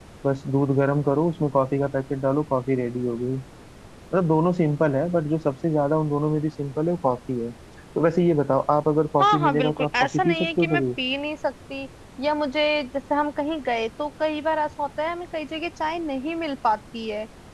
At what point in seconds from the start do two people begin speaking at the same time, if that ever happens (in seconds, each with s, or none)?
9.2 s